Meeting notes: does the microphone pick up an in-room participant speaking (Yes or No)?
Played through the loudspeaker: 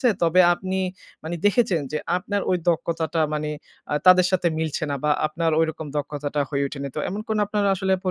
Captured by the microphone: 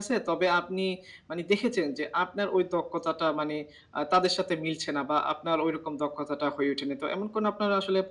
No